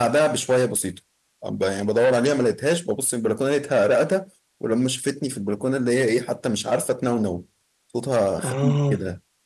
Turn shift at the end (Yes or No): No